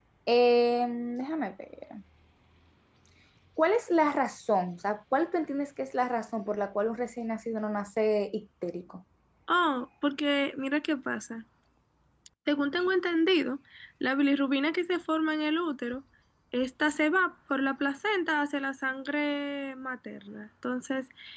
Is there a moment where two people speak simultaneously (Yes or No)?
No